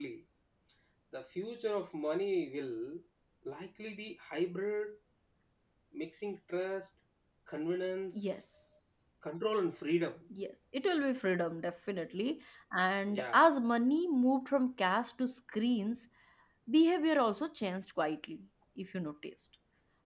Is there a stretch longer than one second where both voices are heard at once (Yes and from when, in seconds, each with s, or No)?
No